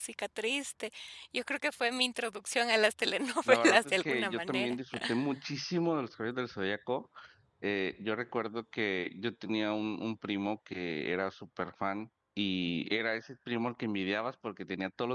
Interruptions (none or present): present